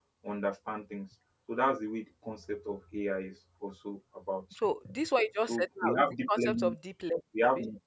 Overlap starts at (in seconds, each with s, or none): 5.5 s